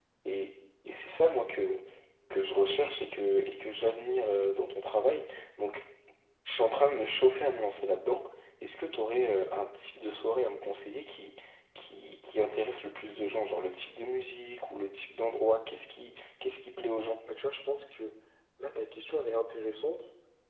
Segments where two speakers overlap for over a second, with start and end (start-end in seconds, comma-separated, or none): none